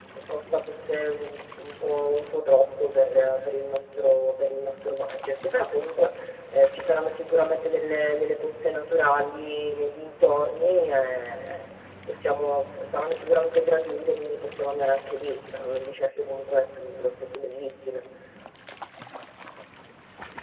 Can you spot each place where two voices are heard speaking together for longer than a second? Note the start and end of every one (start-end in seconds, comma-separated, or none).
none